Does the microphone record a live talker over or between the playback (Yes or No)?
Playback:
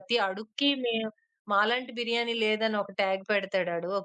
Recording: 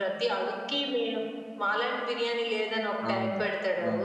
Yes